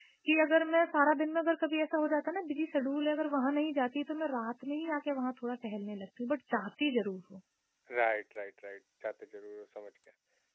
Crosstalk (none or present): none